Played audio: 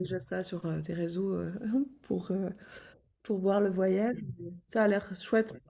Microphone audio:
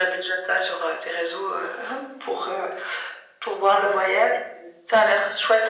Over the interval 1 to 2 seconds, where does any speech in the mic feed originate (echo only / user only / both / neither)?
echo only